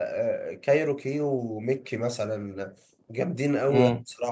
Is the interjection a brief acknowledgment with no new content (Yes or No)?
No